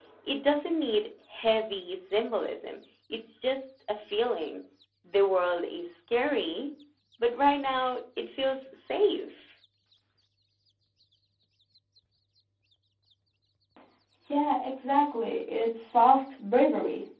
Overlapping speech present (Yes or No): No